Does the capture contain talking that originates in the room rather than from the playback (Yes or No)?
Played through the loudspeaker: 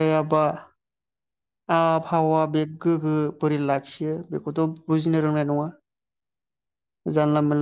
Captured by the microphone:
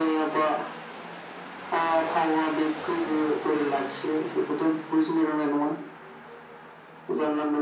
No